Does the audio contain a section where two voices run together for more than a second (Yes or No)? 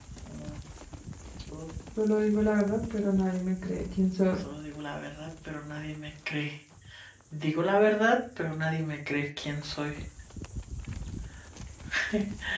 No